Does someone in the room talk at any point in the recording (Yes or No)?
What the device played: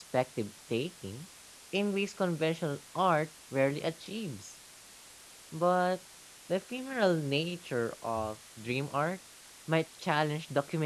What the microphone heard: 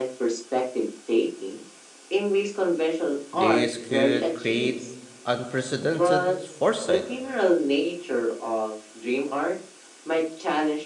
Yes